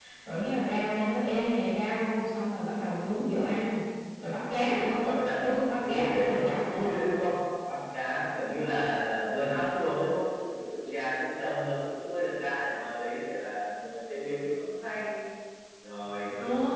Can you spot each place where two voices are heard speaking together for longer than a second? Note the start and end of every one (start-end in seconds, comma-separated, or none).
4.5-6.8